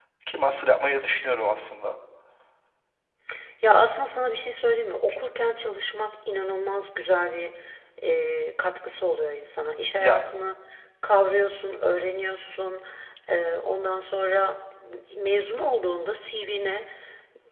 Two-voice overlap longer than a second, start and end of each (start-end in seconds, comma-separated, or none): none